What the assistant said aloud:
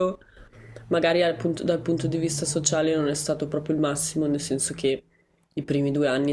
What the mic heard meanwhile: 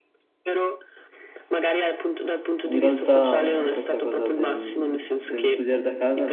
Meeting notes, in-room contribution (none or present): present